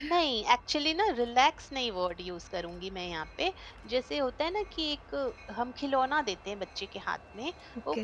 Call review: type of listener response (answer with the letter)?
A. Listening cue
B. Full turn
A